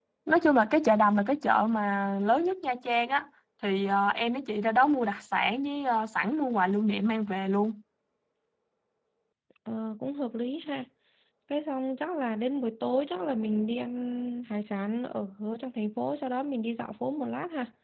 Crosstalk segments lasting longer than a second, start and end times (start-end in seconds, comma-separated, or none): none